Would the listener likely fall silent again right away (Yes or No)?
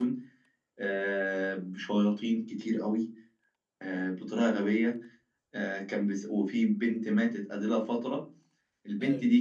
Yes